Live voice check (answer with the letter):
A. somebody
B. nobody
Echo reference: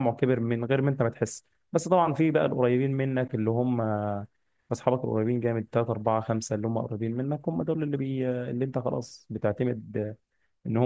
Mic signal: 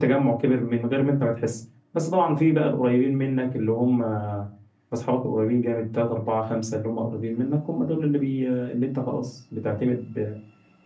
B